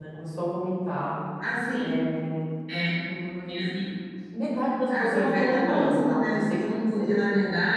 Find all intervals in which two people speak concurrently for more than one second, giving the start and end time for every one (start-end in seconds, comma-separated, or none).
5.0-7.2